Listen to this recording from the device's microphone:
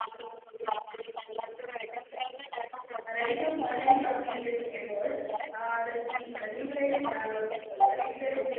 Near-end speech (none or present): present